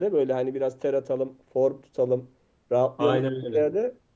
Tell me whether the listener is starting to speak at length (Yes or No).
No